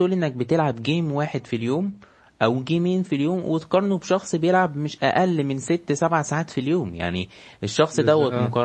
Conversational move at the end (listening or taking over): listening